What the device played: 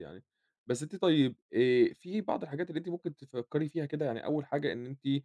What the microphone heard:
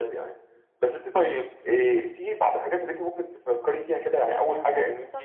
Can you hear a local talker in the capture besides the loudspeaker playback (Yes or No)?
Yes